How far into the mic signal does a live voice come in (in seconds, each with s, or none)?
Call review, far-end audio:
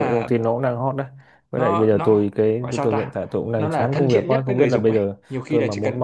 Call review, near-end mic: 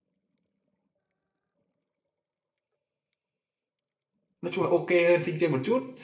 4.4 s